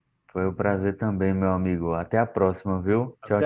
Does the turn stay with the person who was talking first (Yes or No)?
No